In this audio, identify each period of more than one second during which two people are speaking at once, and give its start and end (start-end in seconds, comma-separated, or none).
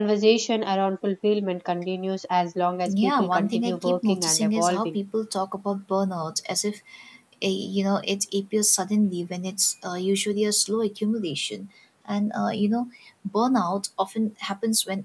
2.9-5.0